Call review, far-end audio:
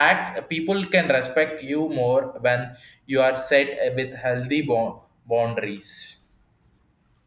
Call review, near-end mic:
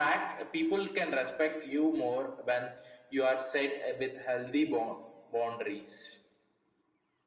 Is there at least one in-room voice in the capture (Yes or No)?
No